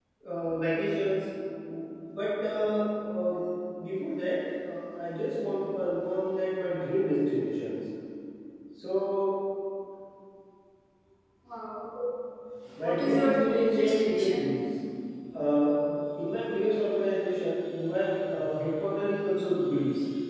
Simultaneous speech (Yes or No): Yes